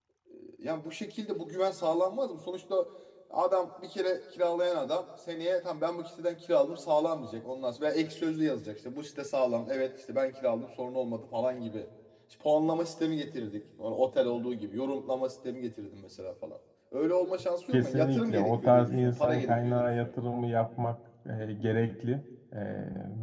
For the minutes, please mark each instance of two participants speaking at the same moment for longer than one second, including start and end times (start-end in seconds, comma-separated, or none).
17.7-20.1